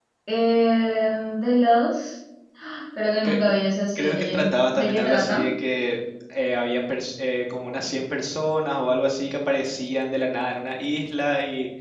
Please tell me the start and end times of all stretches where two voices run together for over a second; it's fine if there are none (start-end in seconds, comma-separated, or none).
4.0-5.4